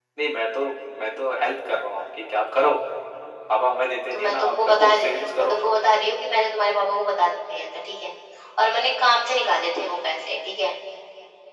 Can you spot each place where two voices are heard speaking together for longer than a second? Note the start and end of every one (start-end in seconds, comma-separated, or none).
4.1-5.6